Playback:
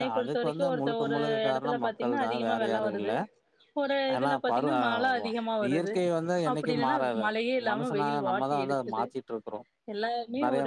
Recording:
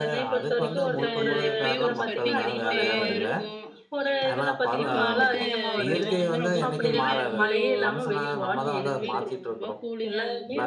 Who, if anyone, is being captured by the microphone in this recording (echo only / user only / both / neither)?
both